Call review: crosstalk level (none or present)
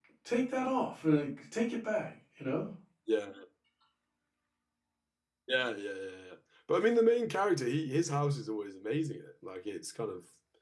none